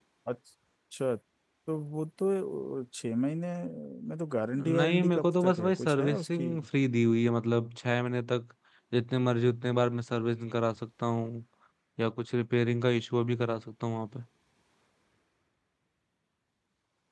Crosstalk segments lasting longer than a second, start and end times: 4.8-6.5

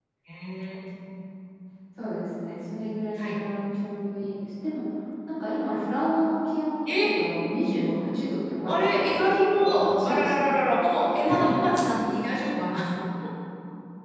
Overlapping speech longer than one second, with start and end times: 8.7-10.5

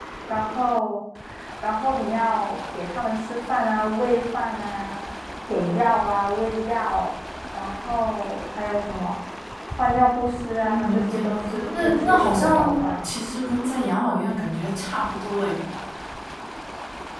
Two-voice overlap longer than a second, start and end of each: 10.6-13.1

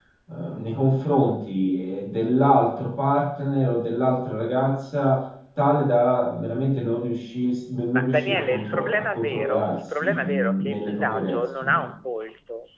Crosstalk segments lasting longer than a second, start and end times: 7.9-11.8

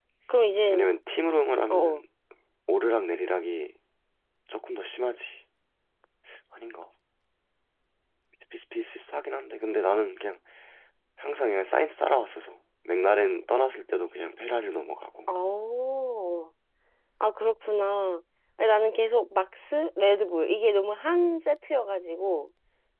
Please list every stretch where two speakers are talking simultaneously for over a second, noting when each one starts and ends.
none

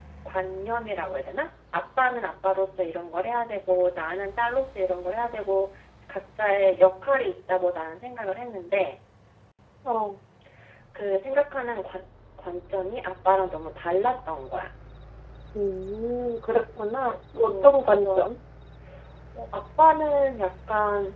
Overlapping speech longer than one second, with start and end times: 16.8-18.3

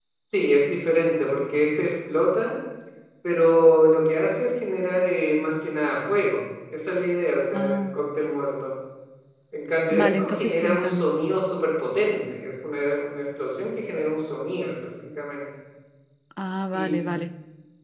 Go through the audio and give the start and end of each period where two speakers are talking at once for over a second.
9.9-11.1

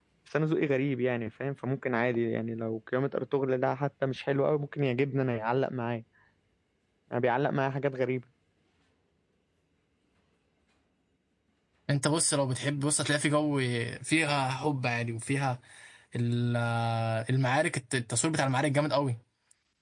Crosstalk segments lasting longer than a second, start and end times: none

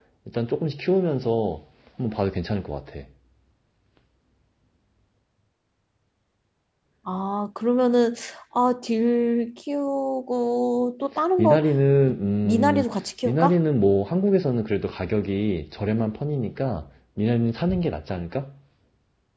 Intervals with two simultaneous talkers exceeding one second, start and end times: none

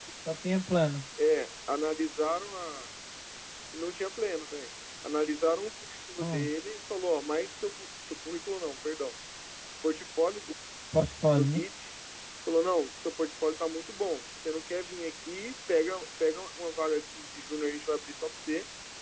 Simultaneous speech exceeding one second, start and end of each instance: none

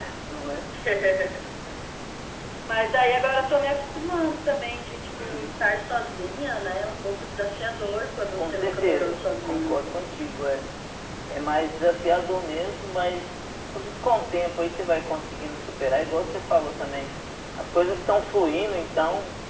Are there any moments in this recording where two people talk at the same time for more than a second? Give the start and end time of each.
8.4-9.8

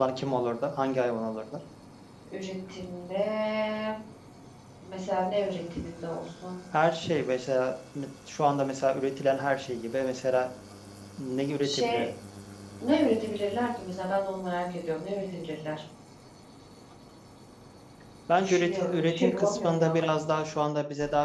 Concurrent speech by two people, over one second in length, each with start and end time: 18.4-20.0

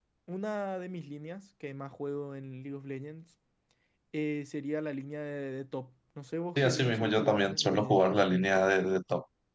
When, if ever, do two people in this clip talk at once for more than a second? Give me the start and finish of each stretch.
6.6-8.0

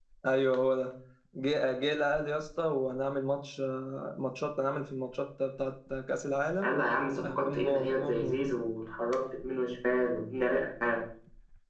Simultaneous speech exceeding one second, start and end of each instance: 7.2-8.4

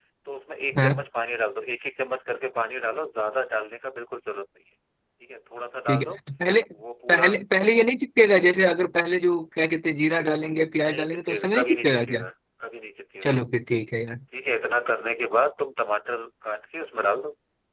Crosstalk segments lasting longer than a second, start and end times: 10.9-12.2

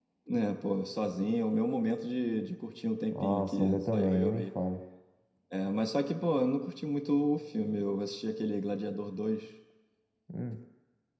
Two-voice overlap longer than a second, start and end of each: 3.1-4.5

